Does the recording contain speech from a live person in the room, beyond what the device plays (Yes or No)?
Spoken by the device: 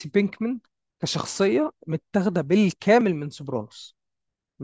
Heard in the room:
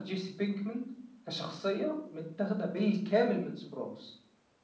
No